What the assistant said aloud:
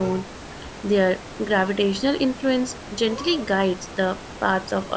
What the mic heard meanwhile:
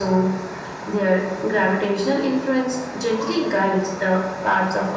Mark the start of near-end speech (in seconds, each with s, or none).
none